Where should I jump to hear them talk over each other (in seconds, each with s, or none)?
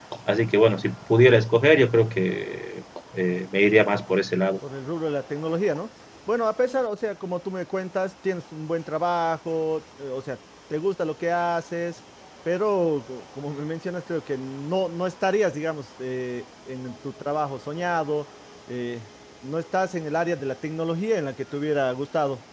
none